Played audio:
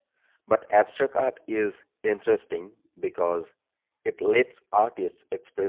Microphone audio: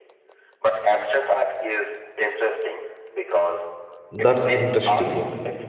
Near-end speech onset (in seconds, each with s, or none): 4.1 s